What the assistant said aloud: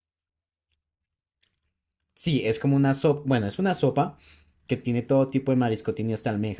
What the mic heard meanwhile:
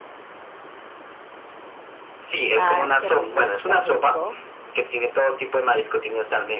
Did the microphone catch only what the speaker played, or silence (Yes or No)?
No